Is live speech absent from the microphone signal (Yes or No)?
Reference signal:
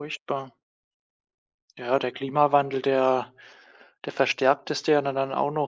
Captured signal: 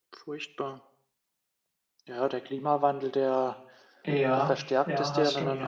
No